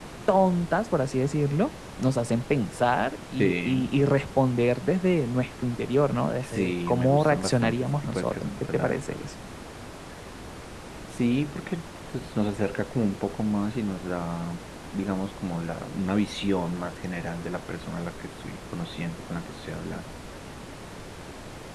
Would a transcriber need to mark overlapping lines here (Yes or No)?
Yes